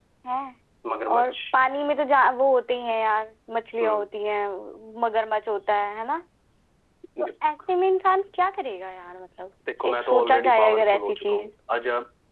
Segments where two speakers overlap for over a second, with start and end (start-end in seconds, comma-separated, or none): 9.8-11.5